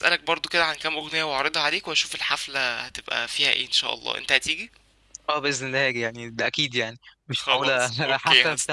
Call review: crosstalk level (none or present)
present